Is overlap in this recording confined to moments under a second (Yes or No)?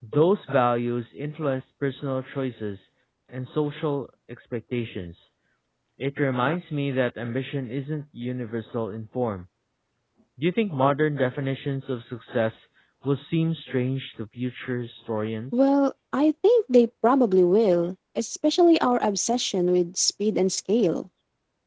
Yes